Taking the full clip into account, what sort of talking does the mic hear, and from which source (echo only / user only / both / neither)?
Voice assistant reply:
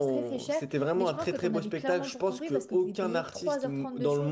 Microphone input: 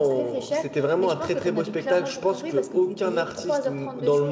echo only